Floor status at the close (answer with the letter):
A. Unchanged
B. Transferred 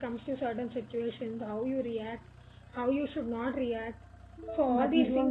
B